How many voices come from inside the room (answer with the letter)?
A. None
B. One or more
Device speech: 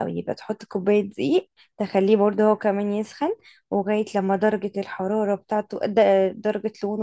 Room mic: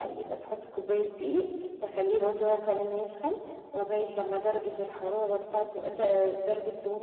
B